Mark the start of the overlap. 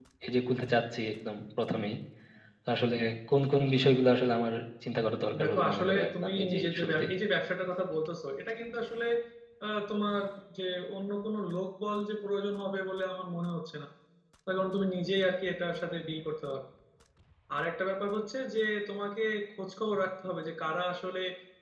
5 s

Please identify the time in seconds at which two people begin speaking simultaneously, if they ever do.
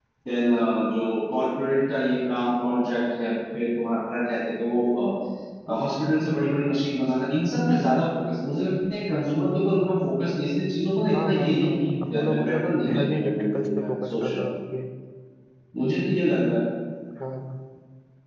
11 s

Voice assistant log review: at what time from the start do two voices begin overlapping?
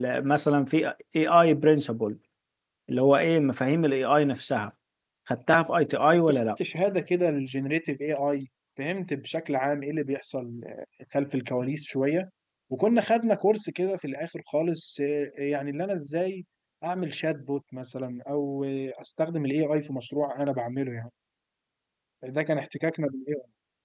none

